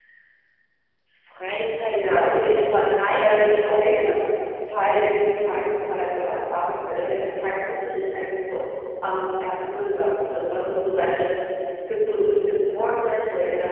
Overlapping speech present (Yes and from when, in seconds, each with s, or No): Yes, from 1.9 s